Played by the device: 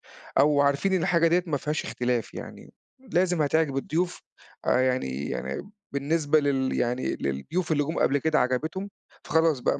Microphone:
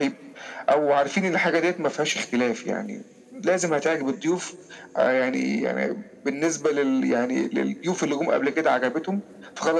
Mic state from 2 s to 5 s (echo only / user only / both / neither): echo only